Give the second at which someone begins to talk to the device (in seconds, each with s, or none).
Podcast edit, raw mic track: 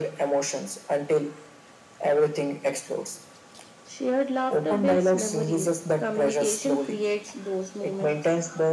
none